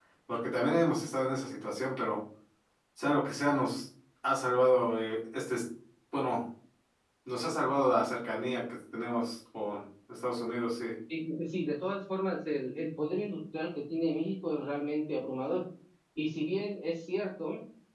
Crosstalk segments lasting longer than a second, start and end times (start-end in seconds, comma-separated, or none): none